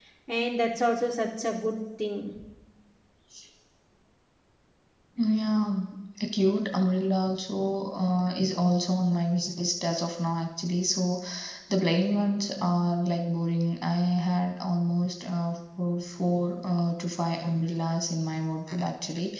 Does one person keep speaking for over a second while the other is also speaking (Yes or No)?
No